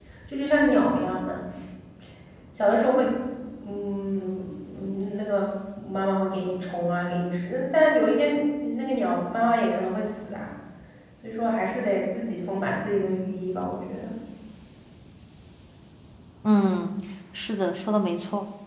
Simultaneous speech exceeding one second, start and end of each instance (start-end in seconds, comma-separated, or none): none